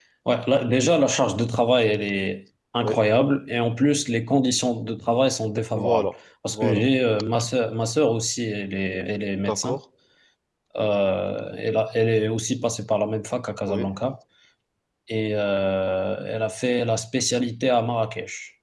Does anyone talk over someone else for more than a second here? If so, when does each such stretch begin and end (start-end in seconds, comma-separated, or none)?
none